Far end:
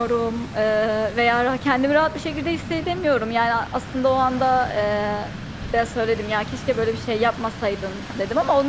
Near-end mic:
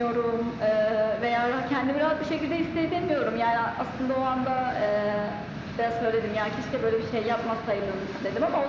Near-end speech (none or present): none